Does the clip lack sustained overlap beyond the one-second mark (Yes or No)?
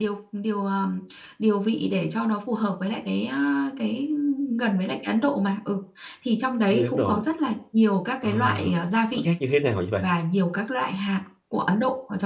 Yes